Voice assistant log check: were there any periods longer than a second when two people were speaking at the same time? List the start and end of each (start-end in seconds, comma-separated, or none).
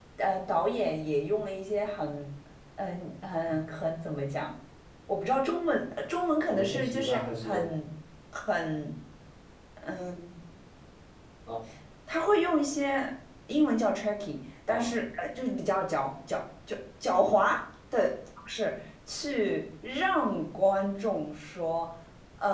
6.5-7.7